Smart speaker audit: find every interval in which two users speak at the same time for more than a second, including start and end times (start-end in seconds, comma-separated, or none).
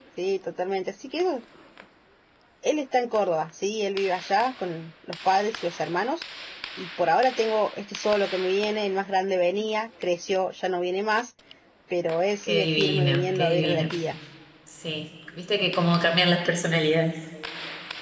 12.4-13.9